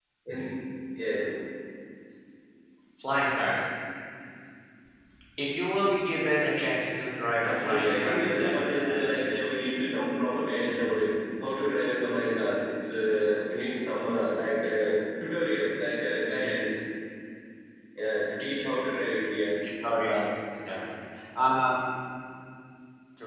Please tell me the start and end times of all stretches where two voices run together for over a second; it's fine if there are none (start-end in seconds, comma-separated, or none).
7.4-9.1